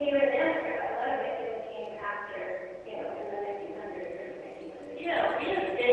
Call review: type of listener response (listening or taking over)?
taking over